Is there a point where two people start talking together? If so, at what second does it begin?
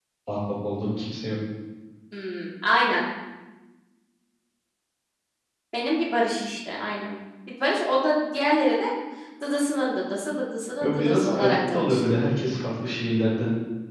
10.8 s

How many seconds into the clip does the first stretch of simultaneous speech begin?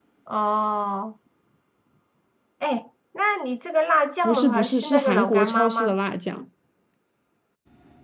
4.2 s

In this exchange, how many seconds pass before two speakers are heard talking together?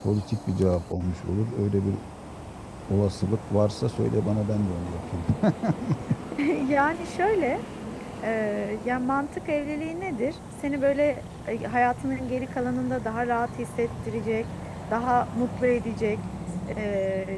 none

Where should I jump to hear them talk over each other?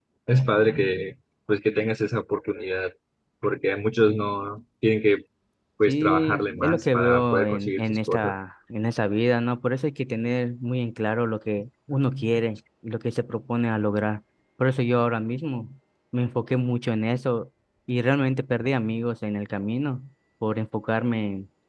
5.9 s

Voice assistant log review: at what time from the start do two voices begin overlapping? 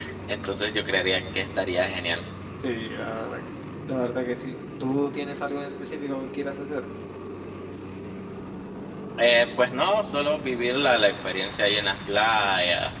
none

